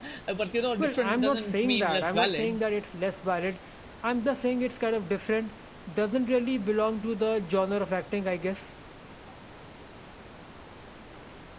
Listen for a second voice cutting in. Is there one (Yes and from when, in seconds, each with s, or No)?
Yes, from 0.8 s